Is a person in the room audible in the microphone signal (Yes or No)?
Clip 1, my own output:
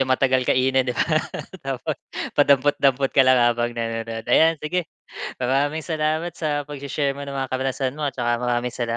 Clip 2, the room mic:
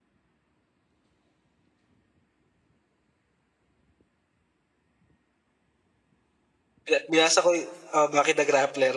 Yes